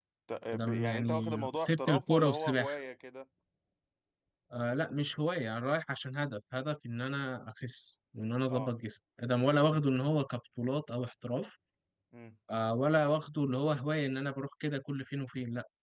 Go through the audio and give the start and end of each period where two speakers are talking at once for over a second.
0.5-2.7

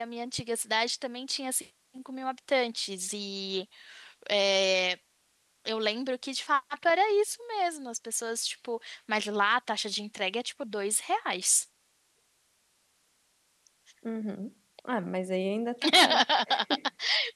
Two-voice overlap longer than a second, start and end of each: none

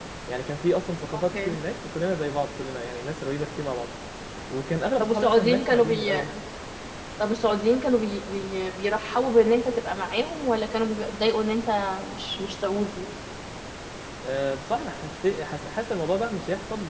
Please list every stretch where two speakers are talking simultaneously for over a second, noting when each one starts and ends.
5.0-6.2

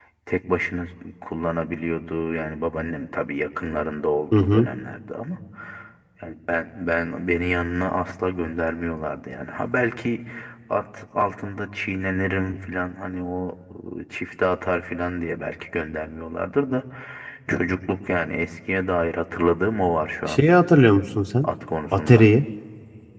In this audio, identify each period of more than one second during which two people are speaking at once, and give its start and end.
none

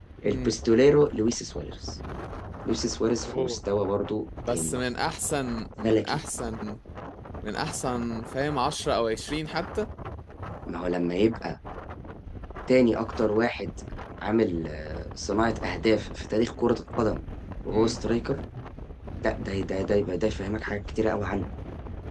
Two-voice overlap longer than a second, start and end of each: none

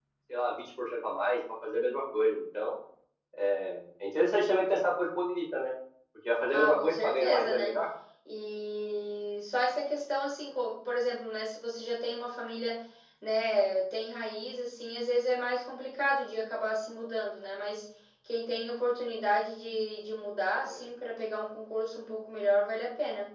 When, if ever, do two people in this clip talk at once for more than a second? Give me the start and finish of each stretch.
6.5-7.7

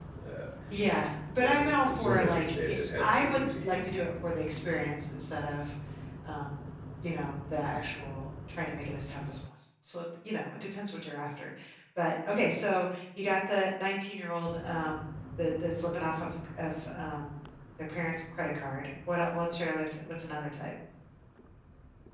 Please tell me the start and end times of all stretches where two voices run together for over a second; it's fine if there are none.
1.4-3.7

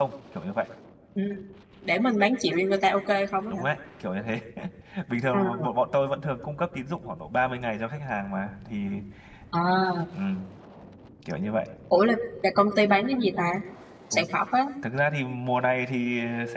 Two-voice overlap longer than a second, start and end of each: none

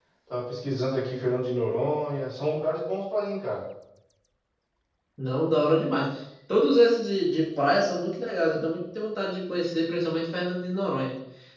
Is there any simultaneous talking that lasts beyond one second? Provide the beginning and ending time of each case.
none

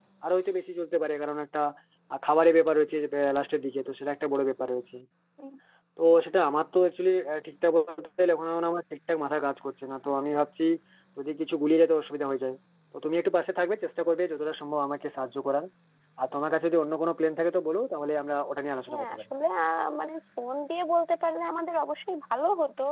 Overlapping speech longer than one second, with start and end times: none

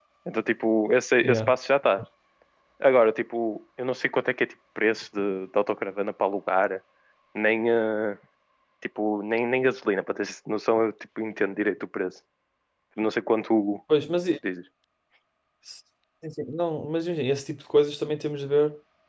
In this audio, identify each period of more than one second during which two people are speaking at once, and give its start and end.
none

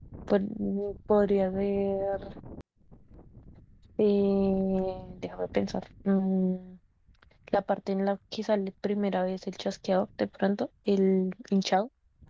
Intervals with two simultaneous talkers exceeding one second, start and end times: none

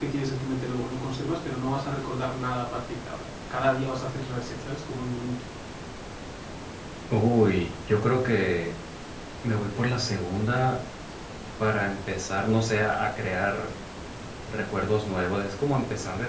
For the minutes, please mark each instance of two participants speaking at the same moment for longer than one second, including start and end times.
none

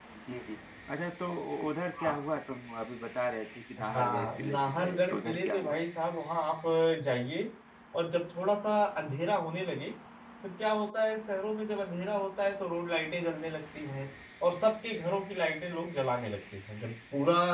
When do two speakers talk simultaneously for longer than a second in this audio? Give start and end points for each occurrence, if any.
3.9-5.8

